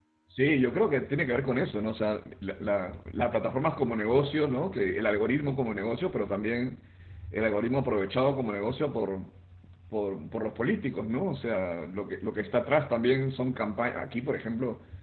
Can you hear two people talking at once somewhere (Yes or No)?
No